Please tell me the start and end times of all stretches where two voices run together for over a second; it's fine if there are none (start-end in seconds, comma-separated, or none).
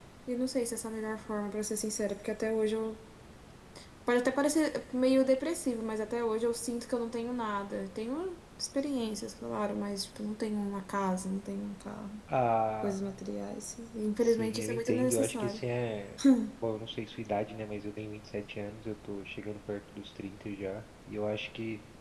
14.2-15.7